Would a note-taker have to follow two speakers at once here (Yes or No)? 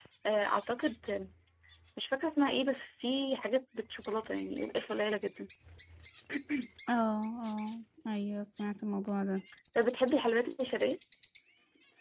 No